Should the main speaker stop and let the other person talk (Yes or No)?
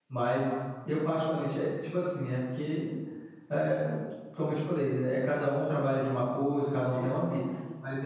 No